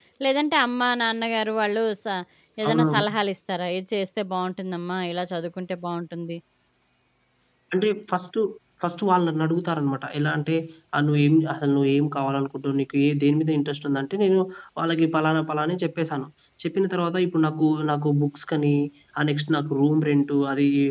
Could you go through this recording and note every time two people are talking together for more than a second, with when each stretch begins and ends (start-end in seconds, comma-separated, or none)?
none